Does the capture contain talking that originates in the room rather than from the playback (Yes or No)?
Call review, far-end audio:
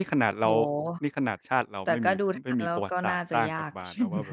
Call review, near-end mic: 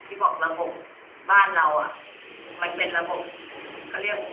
Yes